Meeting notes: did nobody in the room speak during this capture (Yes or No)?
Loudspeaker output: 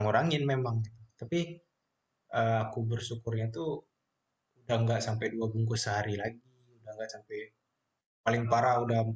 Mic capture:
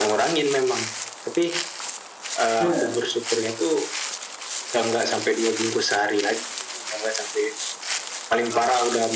No